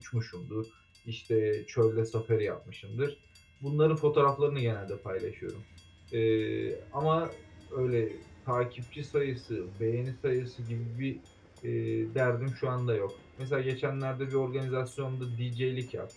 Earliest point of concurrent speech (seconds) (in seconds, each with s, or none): none